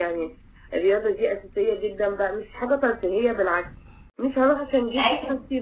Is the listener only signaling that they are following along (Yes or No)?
Yes